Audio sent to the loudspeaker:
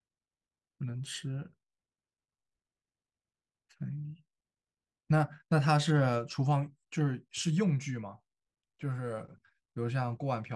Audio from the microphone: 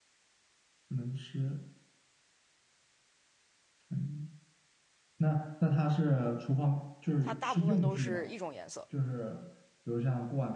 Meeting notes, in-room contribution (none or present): present